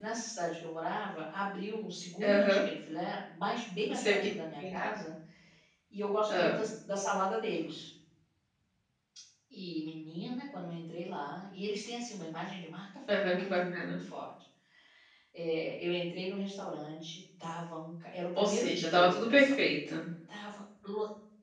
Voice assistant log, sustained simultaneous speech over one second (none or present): present